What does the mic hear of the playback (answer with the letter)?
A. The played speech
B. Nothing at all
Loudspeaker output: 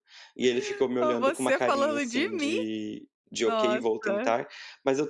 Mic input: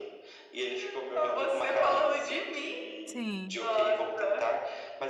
A